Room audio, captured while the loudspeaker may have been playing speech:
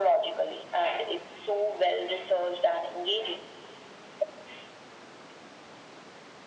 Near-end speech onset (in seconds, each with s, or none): none